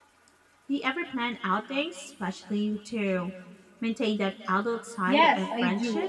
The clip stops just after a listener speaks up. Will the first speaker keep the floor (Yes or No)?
No